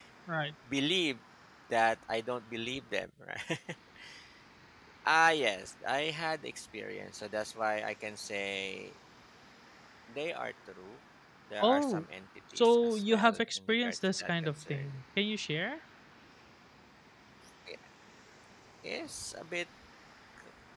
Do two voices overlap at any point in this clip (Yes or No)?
Yes